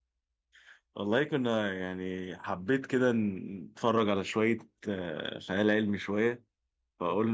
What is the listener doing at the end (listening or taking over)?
listening